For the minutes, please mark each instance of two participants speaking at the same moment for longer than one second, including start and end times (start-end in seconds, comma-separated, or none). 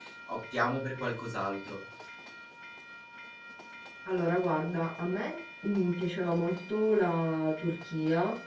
none